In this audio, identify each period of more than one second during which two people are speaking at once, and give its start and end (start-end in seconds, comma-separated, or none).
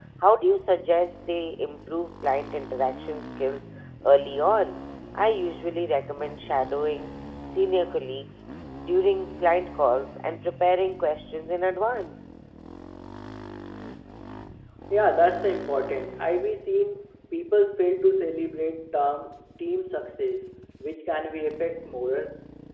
none